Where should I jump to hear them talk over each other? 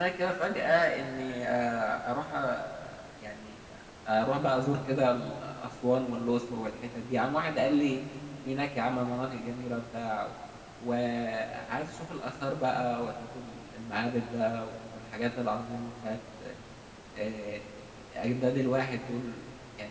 none

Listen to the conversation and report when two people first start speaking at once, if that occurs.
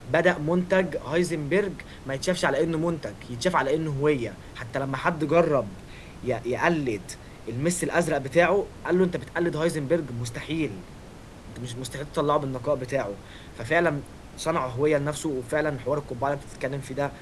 none

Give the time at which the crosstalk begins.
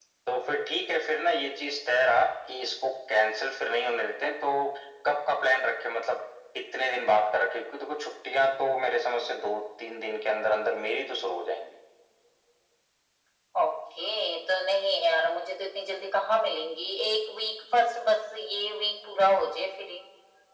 none

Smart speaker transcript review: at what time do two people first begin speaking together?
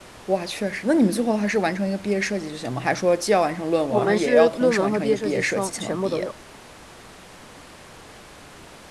3.9 s

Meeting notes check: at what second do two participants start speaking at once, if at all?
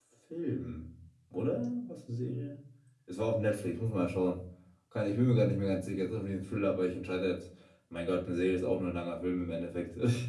none

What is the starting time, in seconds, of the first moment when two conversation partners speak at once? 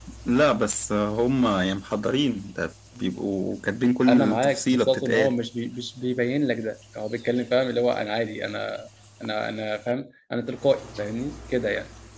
4.1 s

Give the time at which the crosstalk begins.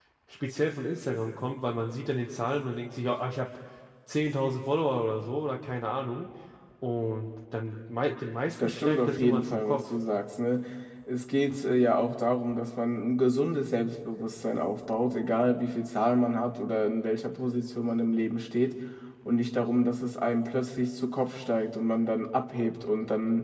8.6 s

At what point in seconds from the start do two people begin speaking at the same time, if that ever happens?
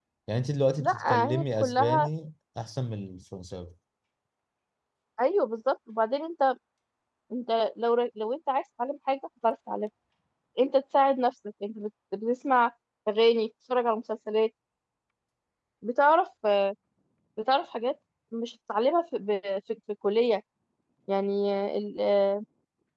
0.8 s

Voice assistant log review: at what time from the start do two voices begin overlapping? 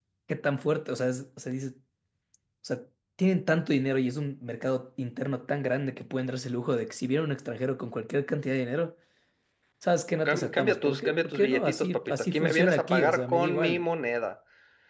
10.3 s

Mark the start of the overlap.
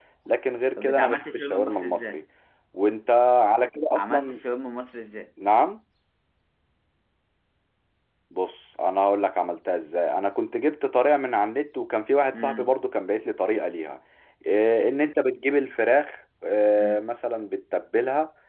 0.8 s

